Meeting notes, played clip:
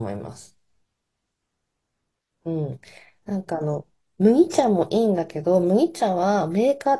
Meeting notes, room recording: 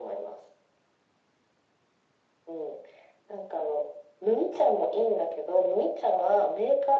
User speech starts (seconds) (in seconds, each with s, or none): none